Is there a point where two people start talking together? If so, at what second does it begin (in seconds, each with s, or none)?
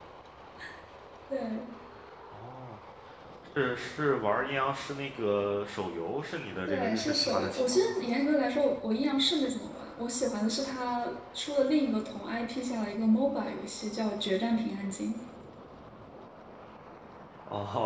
6.7 s